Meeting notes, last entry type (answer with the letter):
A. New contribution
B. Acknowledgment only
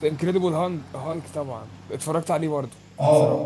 A